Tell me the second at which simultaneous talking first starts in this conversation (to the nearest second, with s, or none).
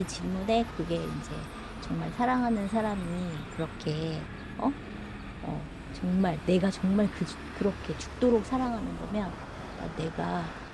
none